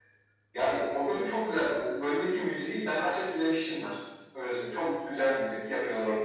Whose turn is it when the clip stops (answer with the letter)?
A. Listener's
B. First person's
B